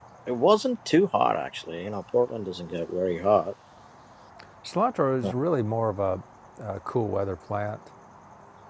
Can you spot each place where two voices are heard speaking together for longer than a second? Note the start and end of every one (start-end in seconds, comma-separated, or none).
none